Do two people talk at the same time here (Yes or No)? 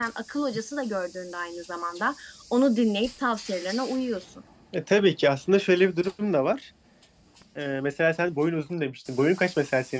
No